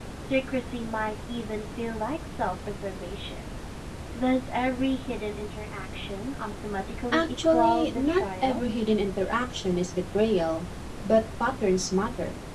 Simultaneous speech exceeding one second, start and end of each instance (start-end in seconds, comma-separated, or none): 7.1-8.6